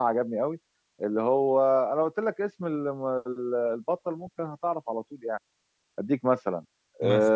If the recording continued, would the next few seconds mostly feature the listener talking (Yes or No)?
No